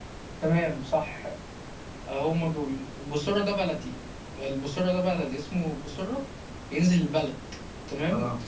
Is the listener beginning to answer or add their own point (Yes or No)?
No